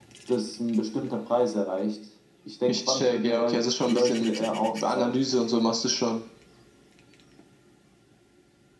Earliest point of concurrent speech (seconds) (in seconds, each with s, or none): 2.7 s